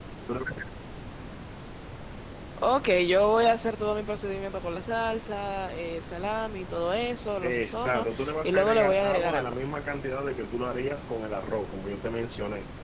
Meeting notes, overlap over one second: present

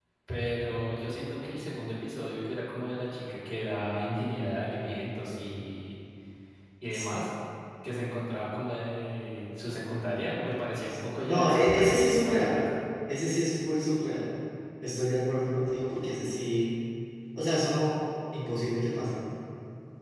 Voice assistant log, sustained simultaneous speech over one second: present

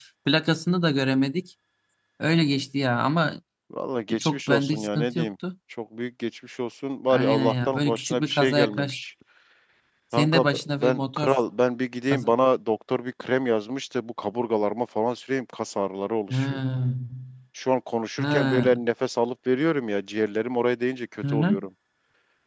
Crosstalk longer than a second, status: present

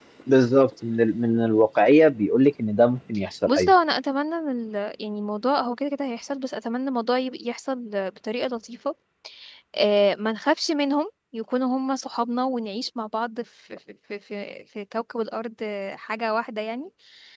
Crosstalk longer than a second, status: none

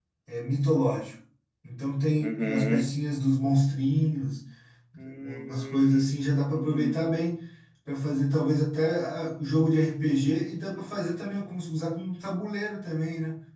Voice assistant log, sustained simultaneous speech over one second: present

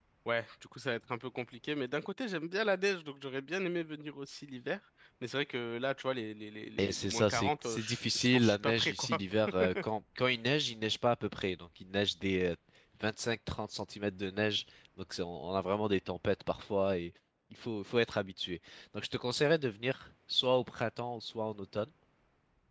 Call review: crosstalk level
present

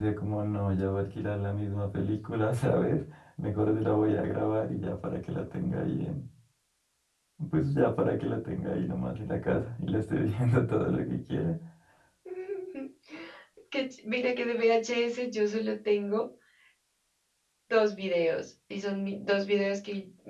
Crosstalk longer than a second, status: none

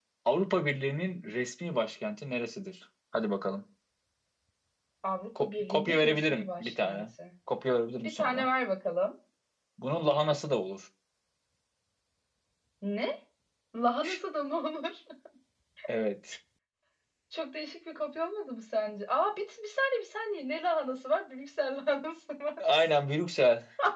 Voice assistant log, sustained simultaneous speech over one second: present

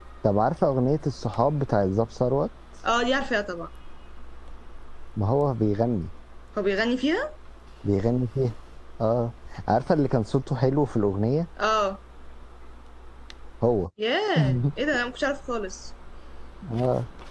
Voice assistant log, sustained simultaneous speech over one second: none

